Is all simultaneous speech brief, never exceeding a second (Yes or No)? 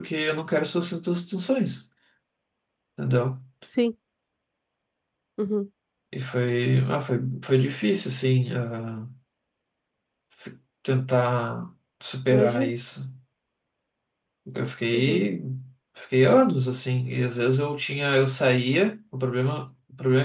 Yes